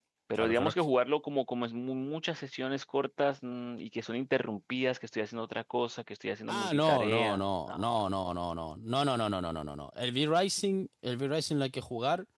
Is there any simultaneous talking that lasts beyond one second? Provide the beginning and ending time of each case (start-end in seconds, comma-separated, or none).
6.5-7.9